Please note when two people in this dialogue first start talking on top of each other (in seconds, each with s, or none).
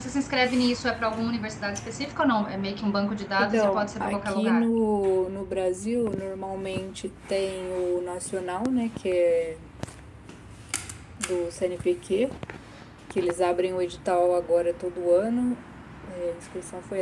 3.4 s